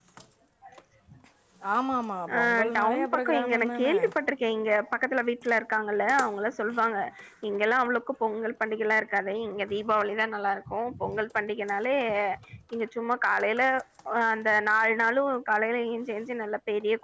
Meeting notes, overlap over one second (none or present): present